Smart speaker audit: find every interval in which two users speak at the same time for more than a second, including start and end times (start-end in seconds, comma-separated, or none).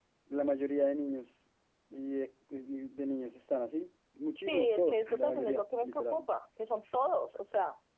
4.4-6.2